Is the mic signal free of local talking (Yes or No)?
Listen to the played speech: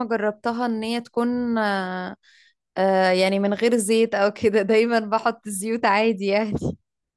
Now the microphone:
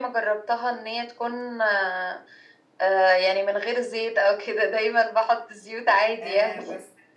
No